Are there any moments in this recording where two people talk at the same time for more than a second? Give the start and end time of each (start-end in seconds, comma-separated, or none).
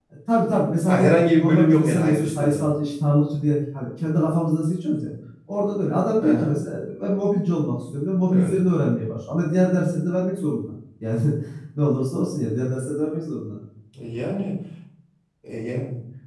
0.9-2.7